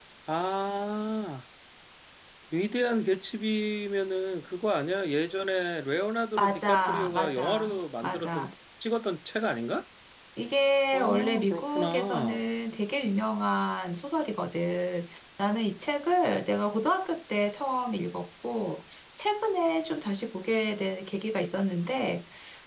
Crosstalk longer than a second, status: present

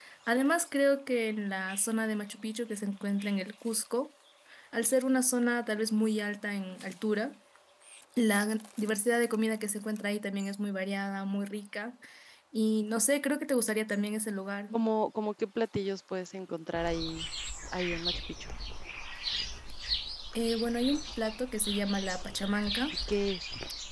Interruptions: none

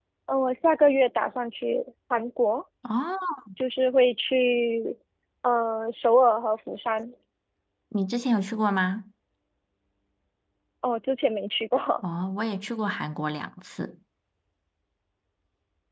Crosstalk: none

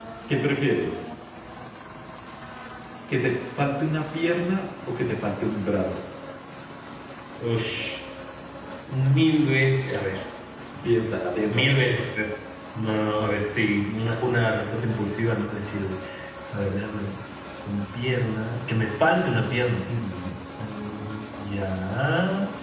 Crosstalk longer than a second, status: none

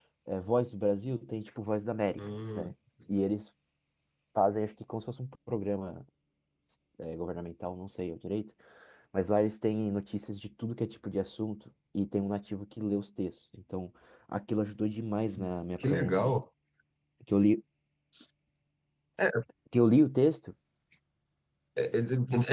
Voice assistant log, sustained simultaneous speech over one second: none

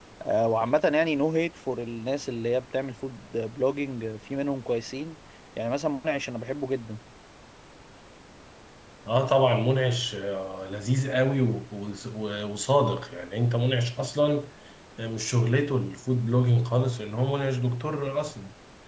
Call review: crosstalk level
none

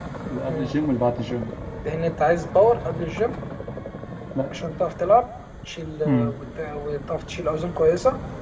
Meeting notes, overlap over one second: none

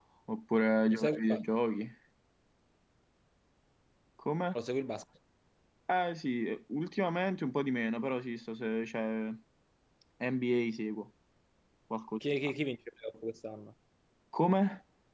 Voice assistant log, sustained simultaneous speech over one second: none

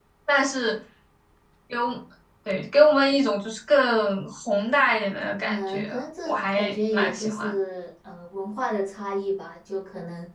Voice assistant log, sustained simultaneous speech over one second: present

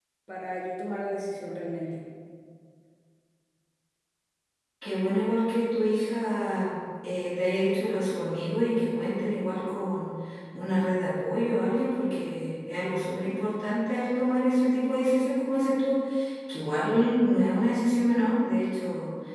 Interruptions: none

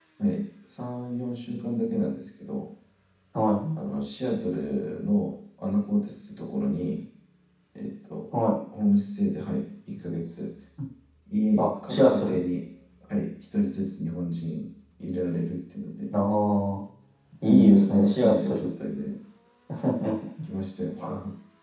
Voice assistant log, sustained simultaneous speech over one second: present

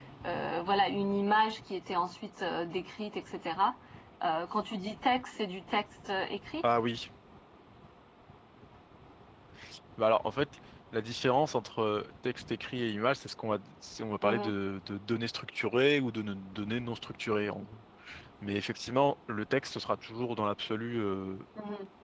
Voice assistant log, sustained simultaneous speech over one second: none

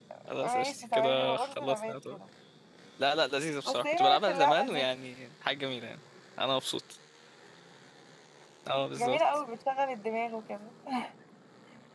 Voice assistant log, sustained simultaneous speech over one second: present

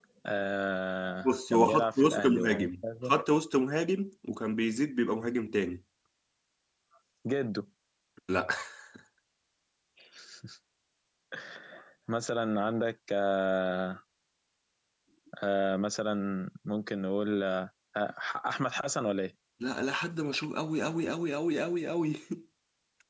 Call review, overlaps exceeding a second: present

